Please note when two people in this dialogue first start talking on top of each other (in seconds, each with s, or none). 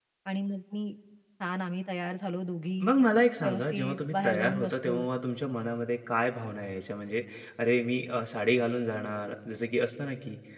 3.4 s